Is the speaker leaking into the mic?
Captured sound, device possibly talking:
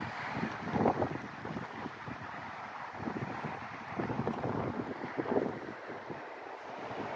No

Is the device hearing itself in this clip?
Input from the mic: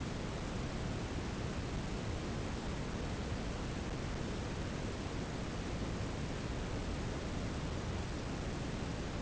No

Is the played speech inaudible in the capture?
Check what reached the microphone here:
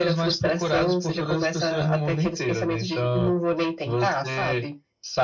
No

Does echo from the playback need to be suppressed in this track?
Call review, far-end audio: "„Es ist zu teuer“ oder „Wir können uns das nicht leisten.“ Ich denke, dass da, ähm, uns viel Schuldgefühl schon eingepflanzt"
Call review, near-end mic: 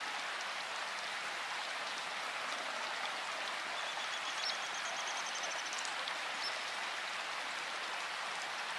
No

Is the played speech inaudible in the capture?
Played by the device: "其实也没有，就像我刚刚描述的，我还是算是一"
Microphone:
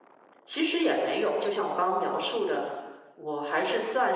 No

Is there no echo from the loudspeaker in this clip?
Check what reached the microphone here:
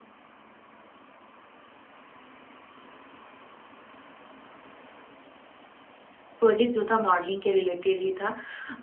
Yes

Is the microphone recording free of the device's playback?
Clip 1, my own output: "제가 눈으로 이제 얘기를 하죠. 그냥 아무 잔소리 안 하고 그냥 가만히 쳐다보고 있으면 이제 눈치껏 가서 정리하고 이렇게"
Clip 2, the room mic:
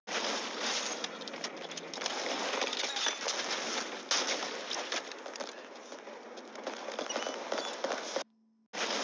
Yes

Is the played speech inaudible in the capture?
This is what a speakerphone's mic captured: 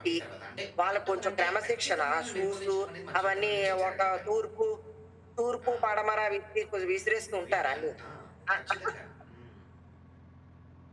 No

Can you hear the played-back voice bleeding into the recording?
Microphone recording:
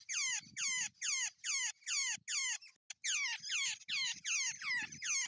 No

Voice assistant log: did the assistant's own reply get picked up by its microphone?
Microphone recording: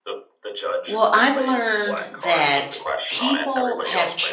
Yes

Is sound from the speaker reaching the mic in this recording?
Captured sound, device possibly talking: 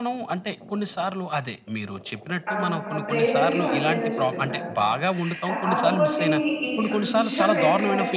Yes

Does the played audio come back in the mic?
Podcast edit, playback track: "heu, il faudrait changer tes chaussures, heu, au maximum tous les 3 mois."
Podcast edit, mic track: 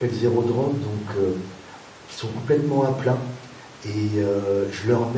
No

